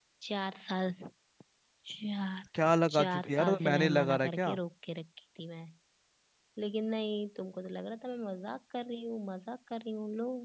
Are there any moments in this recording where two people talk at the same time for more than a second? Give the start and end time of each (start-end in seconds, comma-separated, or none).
3.0-4.6